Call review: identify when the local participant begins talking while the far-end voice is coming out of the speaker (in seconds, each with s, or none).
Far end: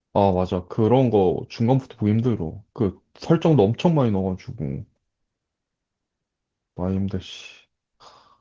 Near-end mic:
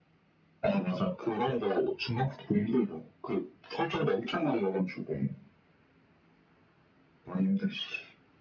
none